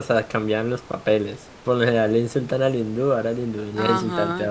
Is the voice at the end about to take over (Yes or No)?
Yes